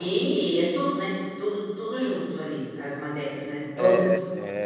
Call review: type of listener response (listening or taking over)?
taking over